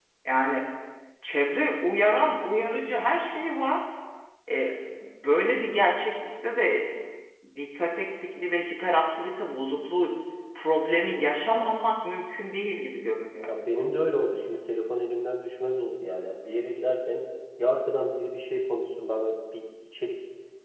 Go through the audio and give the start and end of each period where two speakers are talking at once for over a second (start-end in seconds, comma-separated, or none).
none